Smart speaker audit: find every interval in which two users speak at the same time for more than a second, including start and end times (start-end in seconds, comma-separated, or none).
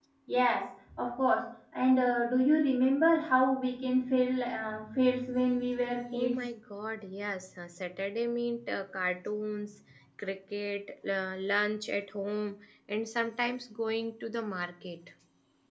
none